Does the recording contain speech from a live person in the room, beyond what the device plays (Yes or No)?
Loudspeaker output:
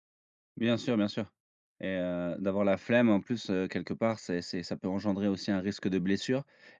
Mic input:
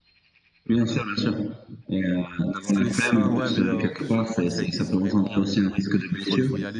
Yes